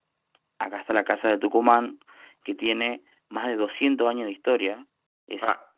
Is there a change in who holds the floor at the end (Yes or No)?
No